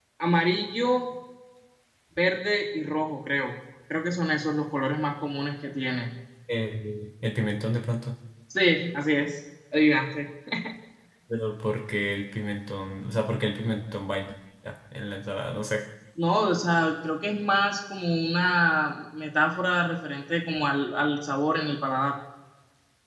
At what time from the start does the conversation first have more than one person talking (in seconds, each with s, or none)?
none